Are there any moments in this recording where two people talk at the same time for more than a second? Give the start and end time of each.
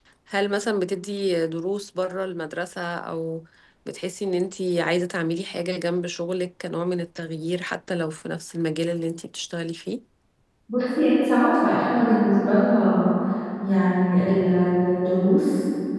none

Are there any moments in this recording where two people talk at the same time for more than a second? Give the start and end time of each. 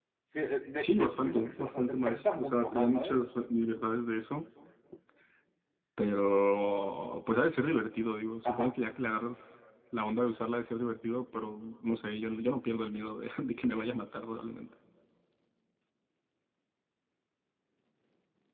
0.8-3.2

